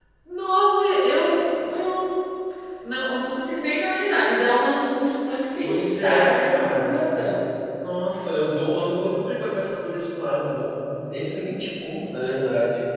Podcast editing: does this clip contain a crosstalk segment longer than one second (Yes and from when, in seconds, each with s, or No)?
Yes, from 5.6 s